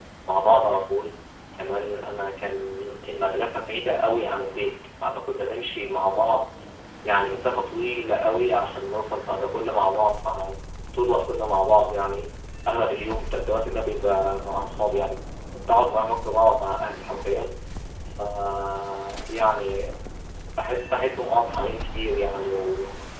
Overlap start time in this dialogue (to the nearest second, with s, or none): none